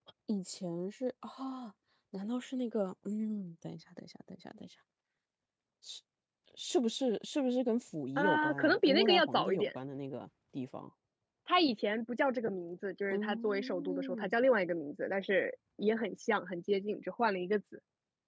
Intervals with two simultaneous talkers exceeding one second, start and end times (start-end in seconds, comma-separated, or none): 8.2-9.7, 13.1-14.3